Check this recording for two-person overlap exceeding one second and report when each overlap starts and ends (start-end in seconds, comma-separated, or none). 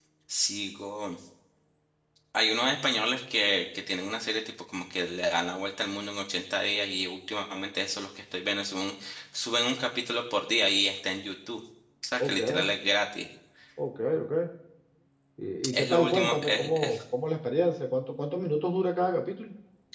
15.7-17.0